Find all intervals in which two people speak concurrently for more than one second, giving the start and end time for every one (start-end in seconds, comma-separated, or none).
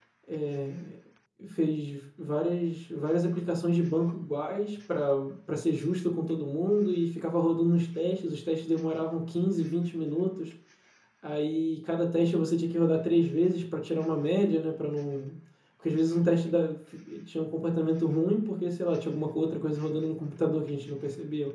none